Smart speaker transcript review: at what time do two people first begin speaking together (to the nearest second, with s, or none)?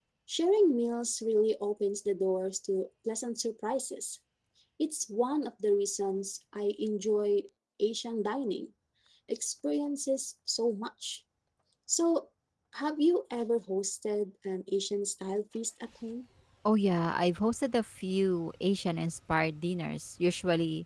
none